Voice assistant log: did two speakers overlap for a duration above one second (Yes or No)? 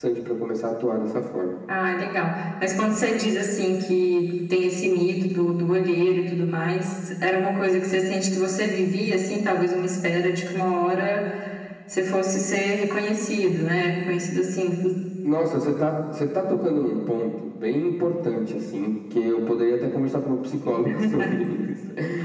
No